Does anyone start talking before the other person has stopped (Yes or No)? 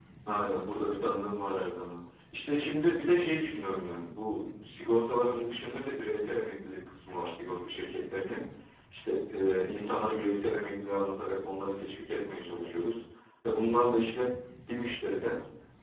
No